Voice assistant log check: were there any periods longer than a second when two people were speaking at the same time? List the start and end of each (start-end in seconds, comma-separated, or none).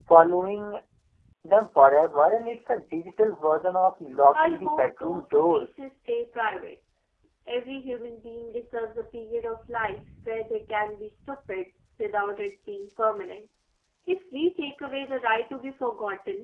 4.3-5.7